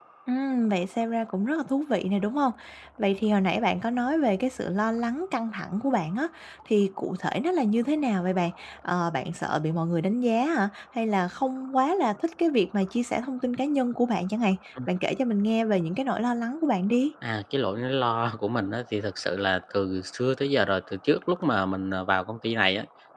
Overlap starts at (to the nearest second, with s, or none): none